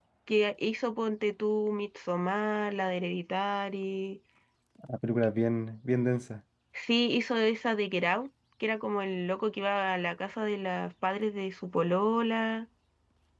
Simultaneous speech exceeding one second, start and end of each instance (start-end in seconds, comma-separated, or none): none